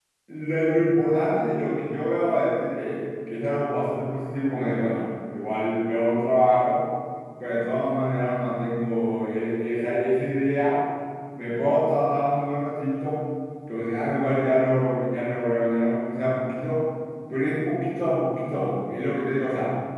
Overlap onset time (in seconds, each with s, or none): none